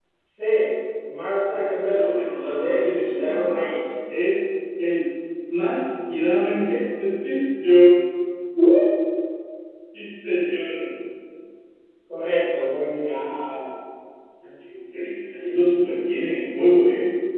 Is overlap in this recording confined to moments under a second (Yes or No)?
No